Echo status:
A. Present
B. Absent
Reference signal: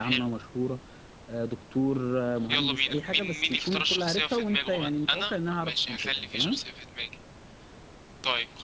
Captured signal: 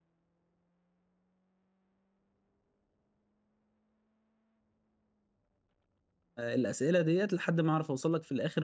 B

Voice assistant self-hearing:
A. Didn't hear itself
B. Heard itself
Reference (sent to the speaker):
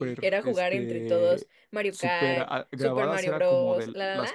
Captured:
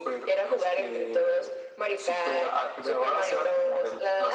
B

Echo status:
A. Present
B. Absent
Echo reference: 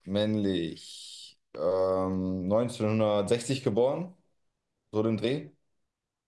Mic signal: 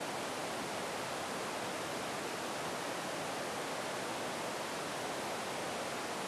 B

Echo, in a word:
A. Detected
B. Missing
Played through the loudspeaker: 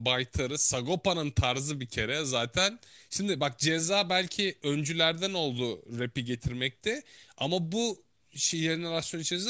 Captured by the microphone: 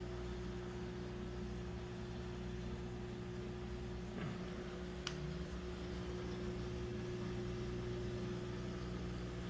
B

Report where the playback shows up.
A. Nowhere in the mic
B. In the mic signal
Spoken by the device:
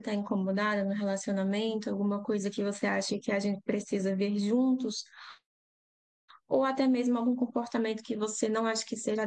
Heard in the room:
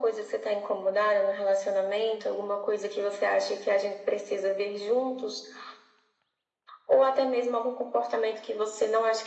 B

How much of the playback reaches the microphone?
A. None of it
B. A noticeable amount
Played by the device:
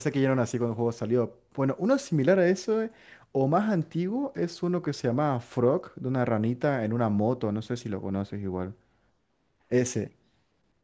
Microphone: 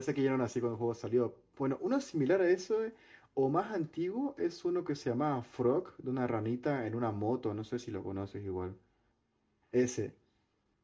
B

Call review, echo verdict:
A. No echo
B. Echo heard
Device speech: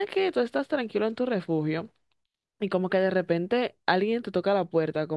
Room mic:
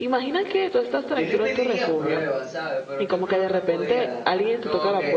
B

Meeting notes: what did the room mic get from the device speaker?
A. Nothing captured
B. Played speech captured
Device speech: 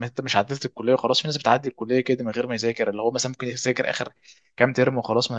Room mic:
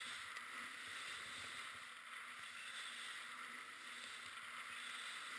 A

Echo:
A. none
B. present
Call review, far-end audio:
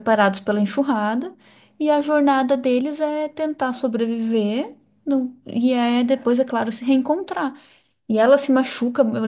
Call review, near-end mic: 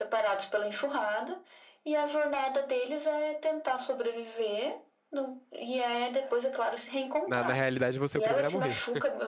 B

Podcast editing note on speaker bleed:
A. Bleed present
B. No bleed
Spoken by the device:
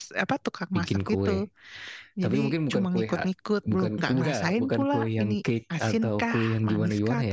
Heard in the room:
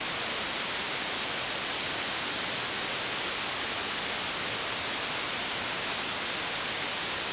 B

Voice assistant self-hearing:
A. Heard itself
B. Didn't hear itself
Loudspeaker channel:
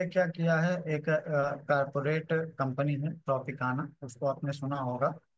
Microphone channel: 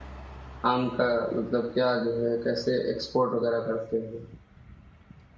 B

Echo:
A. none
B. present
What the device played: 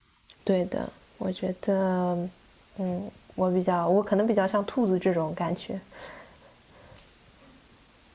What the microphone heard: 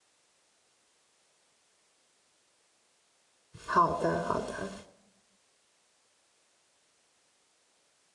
A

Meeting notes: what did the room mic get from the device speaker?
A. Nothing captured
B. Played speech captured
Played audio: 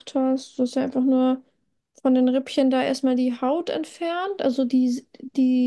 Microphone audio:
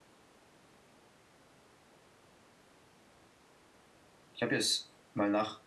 A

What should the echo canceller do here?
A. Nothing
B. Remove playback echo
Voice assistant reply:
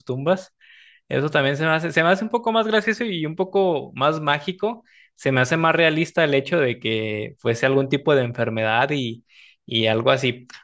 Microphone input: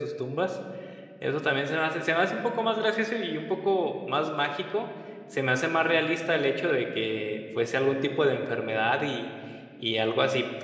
B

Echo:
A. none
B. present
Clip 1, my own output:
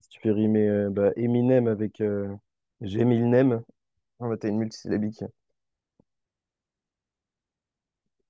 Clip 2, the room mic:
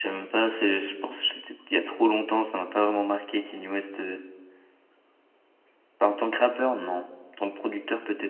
A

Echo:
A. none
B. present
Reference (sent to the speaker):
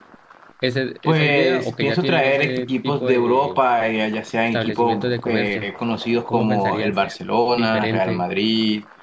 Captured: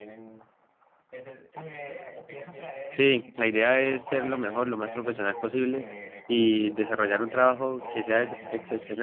B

